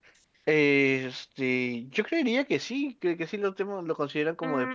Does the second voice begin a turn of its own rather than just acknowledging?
Yes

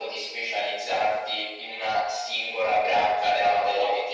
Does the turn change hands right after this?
Yes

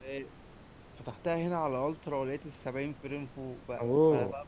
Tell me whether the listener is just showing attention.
Yes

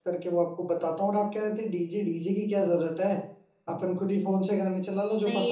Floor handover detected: Yes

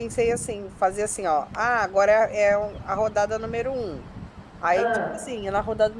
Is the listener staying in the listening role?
Yes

